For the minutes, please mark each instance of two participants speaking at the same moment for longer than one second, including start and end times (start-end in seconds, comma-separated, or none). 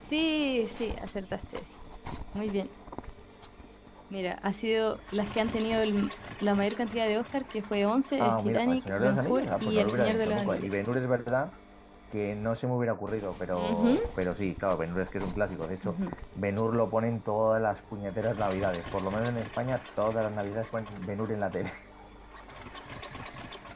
8.2-10.7